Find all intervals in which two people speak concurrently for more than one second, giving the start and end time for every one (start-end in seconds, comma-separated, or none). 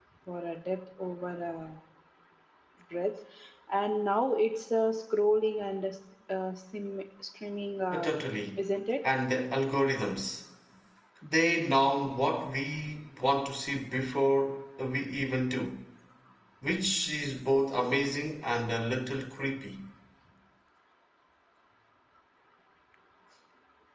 none